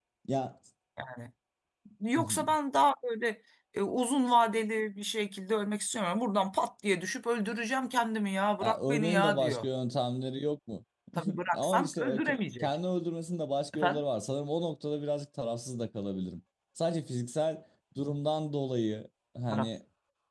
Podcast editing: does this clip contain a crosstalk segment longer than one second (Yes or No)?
Yes